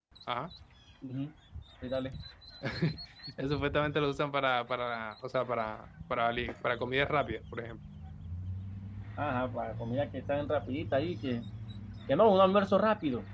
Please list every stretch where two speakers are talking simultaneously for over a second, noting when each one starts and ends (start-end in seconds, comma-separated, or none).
none